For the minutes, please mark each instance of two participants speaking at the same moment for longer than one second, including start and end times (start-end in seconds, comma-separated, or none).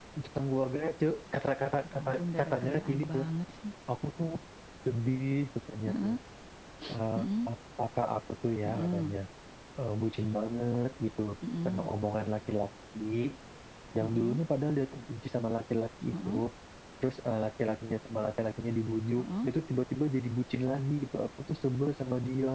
1.9-3.2